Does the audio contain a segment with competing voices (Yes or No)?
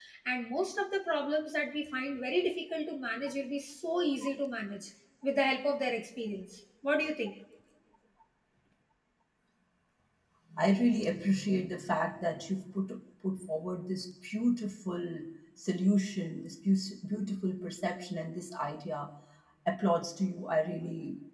No